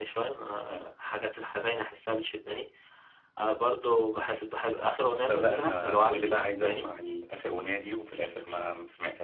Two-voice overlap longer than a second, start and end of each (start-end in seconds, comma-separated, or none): 5.2-6.8